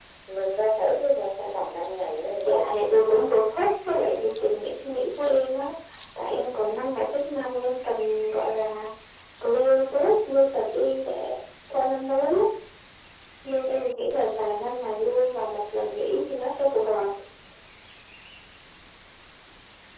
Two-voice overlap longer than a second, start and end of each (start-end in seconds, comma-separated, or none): none